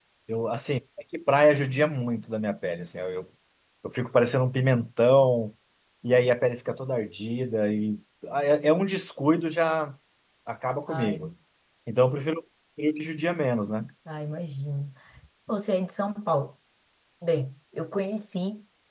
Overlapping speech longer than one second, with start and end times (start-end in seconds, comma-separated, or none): none